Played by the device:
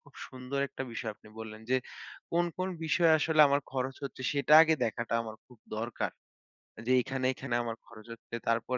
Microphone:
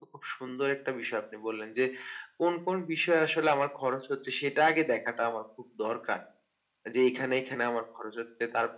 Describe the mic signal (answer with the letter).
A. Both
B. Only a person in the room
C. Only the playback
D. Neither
C